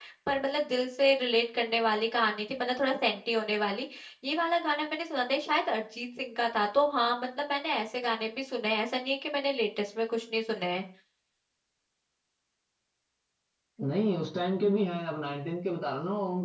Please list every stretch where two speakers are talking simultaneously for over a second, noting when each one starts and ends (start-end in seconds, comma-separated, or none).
none